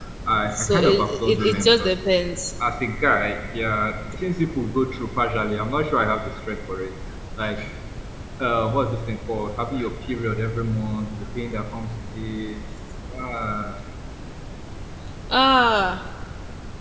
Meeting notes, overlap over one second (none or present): present